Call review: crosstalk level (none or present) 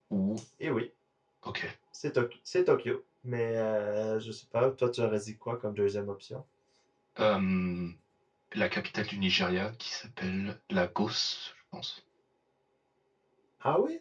none